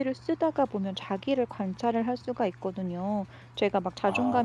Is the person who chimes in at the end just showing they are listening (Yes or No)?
Yes